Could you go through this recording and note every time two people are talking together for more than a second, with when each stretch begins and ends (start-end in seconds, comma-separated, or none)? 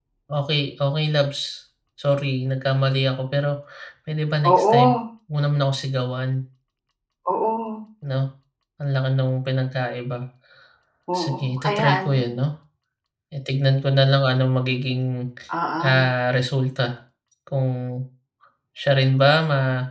11.2-12.4